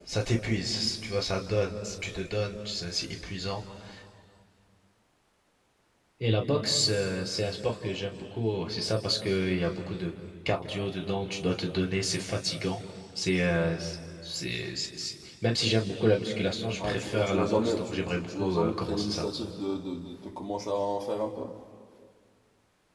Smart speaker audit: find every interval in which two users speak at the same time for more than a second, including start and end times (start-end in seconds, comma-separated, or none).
16.8-19.2